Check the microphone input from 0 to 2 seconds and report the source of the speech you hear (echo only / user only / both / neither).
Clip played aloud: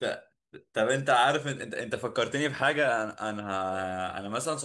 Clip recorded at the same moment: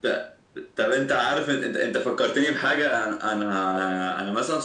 echo only